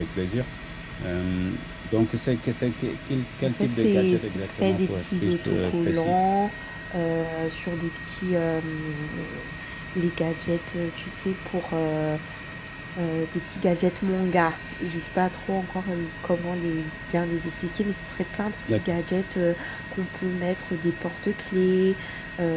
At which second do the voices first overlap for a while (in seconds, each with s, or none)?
3.4 s